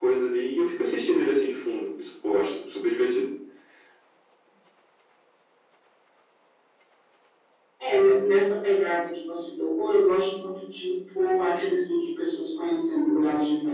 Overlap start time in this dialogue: none

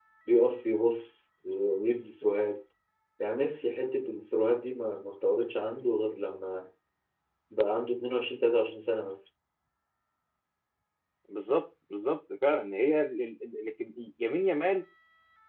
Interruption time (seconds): none

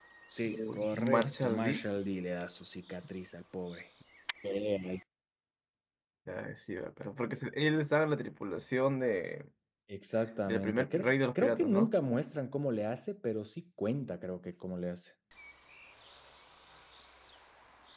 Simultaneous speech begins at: 0.5 s

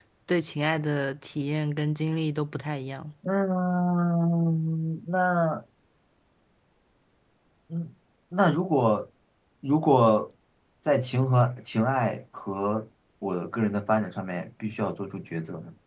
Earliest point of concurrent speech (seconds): none

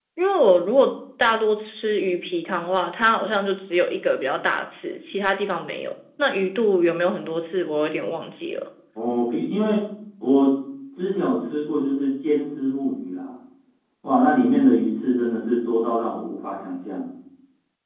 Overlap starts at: none

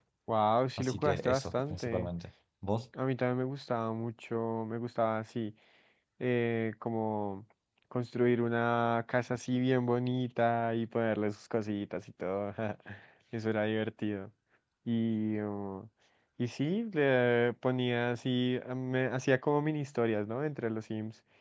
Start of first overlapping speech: 0.8 s

